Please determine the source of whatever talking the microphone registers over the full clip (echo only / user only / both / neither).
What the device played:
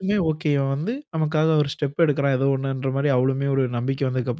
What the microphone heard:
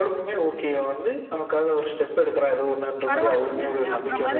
both